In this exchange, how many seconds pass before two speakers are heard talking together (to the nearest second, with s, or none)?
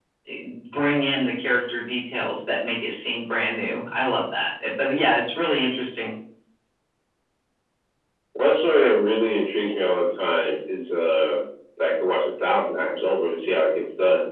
none